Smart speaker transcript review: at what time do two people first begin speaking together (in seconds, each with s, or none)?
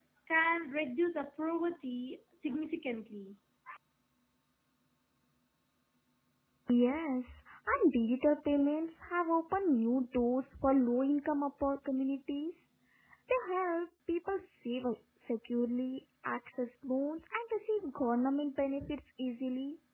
none